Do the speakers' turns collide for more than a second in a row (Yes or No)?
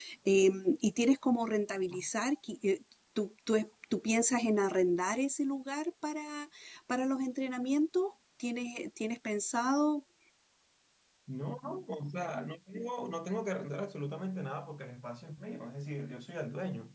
No